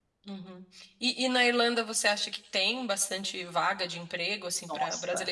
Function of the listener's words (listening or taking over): listening